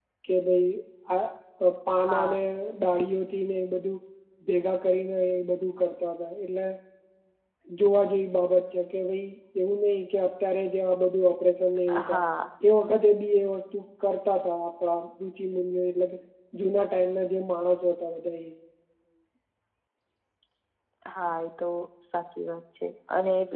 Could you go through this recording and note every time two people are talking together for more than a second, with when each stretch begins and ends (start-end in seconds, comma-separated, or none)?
none